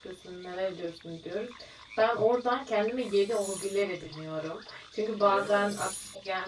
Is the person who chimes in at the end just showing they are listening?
Yes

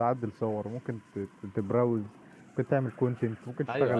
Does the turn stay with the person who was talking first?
No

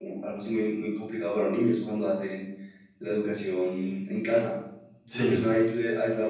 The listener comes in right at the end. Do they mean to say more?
No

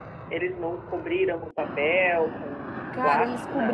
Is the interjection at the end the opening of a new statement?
Yes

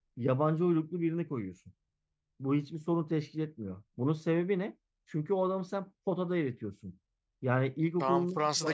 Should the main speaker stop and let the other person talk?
Yes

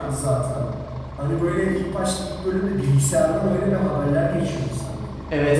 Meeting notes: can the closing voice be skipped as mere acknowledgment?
No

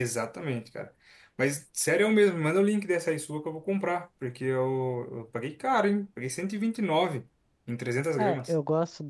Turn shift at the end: Yes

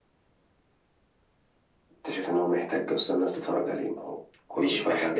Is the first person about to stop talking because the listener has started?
Yes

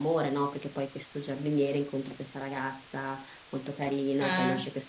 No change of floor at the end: Yes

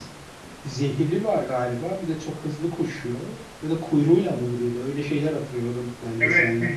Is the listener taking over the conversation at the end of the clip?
Yes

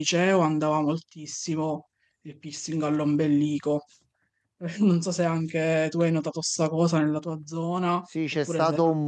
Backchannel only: No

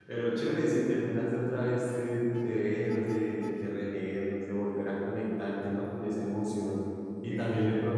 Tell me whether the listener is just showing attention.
Yes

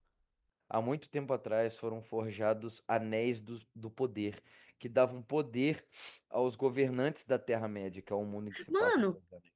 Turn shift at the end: Yes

